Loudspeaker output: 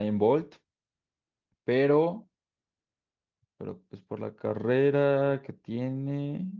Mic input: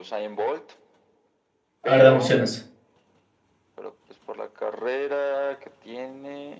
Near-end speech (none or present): present